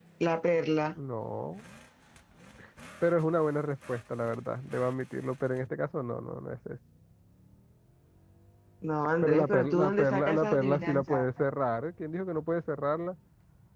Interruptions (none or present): present